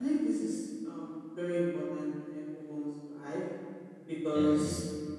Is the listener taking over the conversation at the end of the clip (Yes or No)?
No